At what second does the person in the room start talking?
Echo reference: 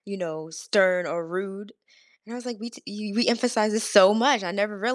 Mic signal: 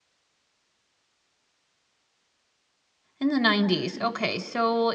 3.2 s

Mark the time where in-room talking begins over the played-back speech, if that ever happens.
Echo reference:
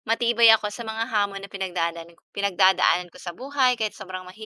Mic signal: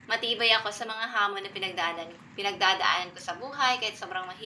none

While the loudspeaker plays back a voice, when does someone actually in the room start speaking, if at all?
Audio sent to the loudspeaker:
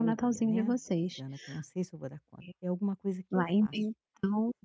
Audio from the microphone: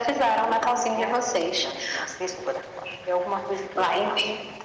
none

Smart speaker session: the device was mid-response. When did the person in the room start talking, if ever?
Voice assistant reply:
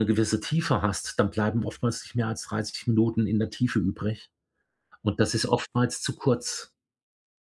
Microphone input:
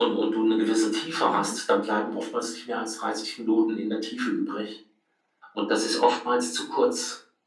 1.2 s

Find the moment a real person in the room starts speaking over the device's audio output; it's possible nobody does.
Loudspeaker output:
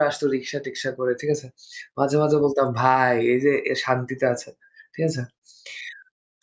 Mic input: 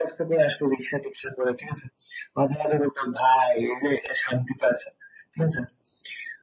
none

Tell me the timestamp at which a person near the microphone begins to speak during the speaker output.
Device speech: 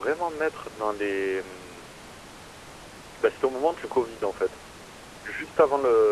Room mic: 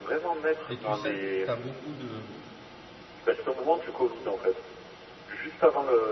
0.7 s

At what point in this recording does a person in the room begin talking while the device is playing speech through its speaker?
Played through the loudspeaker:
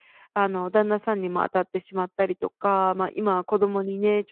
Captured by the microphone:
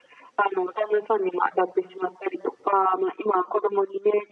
none

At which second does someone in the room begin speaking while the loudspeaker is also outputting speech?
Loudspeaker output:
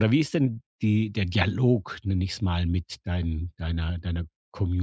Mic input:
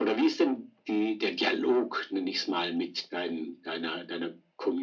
none

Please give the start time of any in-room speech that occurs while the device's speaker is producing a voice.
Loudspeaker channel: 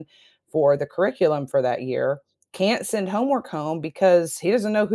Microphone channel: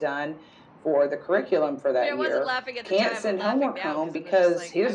1.9 s

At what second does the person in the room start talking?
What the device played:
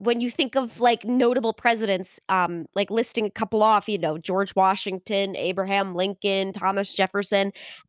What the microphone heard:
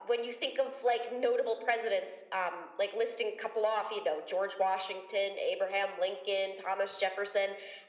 none

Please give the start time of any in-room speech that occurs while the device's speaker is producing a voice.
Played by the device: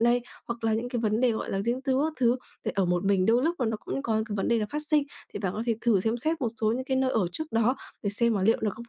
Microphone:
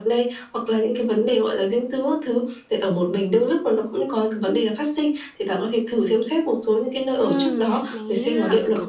7.2 s

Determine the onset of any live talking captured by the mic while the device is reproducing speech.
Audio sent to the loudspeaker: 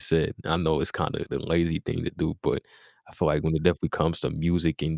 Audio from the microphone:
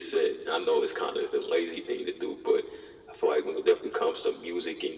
none

